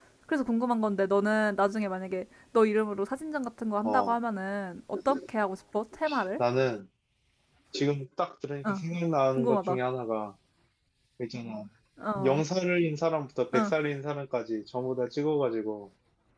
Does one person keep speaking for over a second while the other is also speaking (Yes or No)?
No